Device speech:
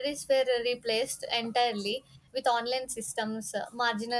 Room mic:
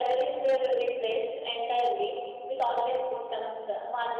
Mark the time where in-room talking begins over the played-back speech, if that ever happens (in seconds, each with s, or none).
none